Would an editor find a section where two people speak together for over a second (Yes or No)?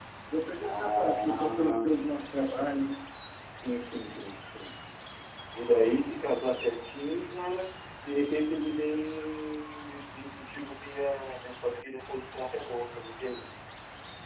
Yes